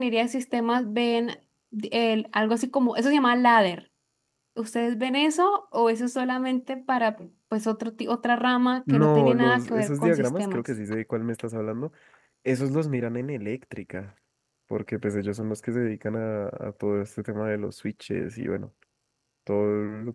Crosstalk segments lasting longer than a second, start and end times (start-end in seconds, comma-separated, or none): 8.9-10.6